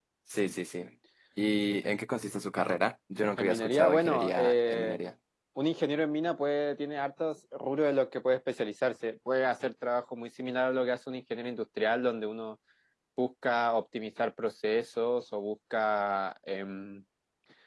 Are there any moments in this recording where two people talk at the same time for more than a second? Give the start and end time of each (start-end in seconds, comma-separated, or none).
3.4-5.0